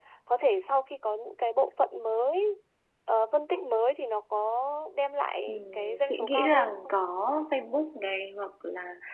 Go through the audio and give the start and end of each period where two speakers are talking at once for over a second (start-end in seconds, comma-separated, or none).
5.5-7.0